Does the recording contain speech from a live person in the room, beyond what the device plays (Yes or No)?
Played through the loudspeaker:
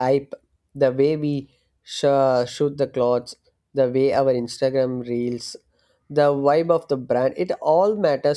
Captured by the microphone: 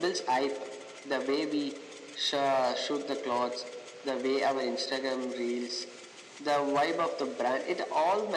No